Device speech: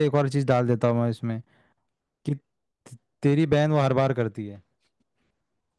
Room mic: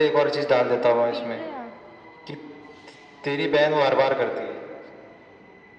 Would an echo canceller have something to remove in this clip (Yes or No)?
Yes